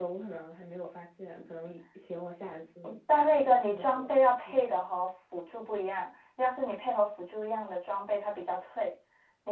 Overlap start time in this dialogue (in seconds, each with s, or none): 3.1 s